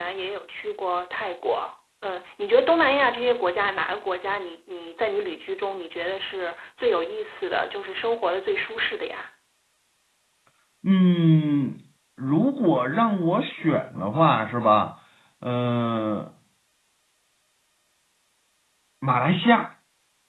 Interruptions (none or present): none